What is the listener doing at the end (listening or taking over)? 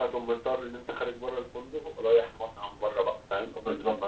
taking over